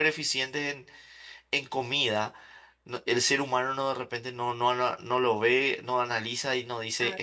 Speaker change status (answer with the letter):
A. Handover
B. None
B